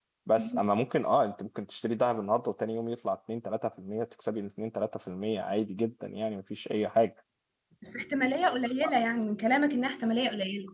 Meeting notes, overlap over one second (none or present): none